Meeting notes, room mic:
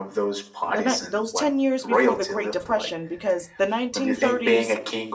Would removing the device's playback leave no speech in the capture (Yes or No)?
No